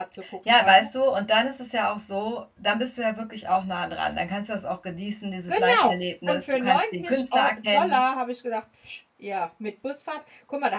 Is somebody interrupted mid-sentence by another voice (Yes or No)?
Yes